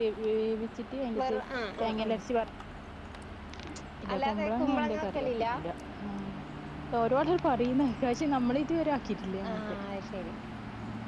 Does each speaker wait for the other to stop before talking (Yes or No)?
No